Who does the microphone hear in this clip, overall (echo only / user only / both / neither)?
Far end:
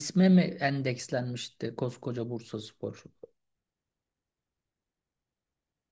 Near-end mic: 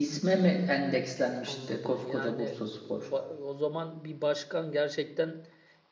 both